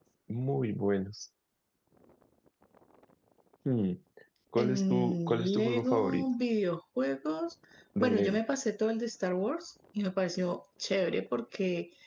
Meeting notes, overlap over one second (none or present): present